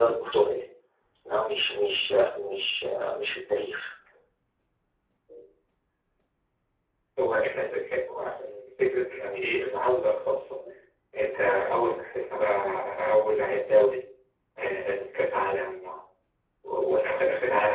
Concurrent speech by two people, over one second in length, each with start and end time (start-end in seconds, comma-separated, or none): none